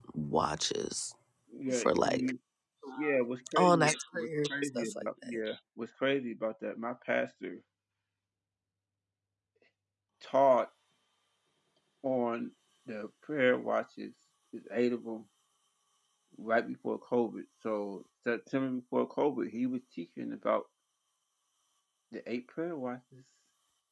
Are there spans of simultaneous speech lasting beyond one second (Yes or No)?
Yes